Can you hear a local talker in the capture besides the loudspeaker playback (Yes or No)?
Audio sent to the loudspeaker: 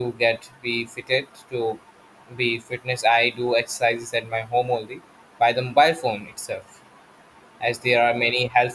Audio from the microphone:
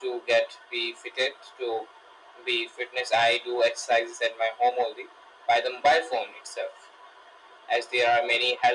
No